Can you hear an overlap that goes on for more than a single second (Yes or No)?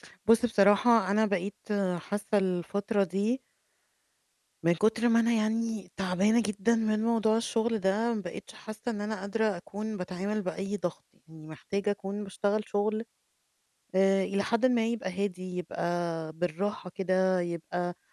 No